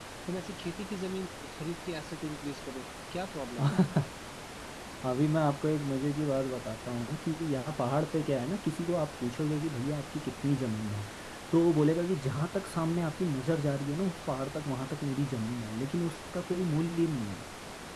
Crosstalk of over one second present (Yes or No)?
No